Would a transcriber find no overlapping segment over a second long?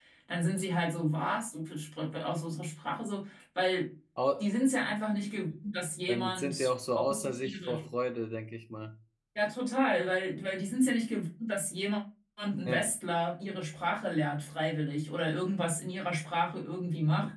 No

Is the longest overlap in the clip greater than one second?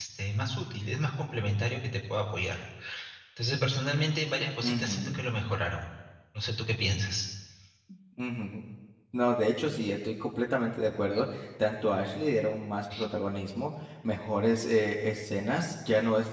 No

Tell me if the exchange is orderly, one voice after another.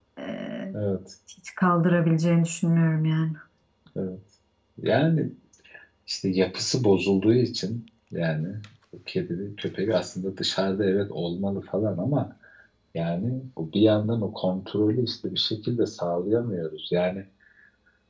Yes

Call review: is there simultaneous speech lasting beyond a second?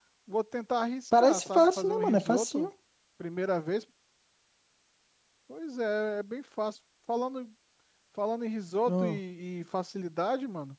Yes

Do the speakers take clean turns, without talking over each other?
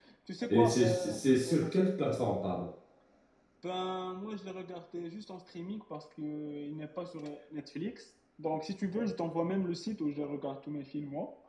No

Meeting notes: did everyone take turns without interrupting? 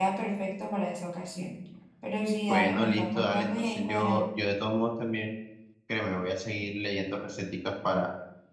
No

